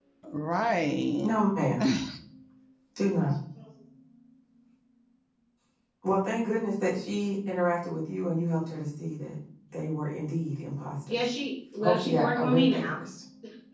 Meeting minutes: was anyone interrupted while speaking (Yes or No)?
Yes